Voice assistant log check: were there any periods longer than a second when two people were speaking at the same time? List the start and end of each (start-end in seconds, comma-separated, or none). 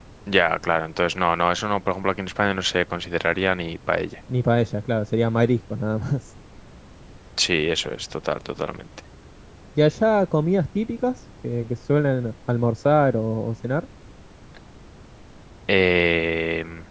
none